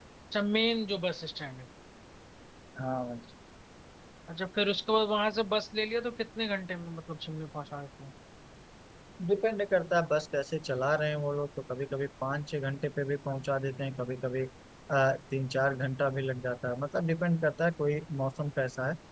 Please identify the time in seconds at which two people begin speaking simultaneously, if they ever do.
none

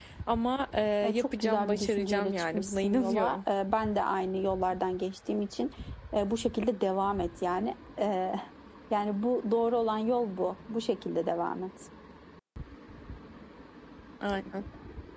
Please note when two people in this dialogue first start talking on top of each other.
1.0 s

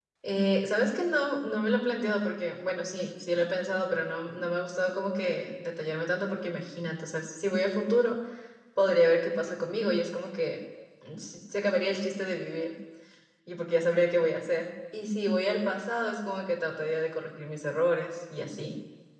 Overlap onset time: none

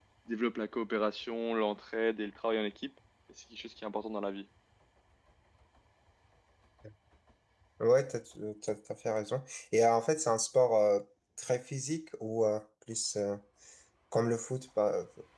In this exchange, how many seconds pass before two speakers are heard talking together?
none

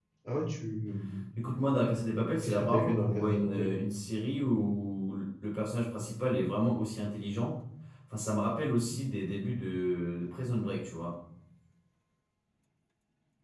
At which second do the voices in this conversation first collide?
2.4 s

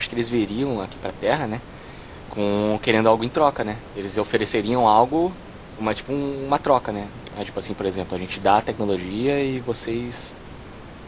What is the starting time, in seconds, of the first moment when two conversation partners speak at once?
none

